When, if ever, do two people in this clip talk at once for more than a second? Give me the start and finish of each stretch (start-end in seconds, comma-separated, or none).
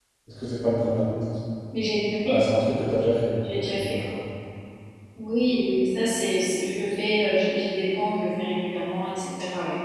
none